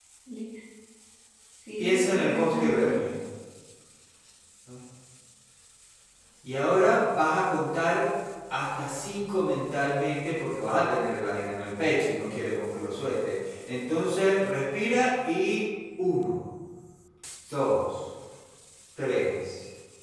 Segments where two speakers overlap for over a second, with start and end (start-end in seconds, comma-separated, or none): 1.8-3.0